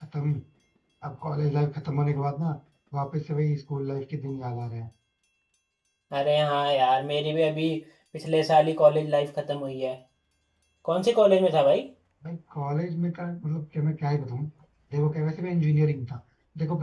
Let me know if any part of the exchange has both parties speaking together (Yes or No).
No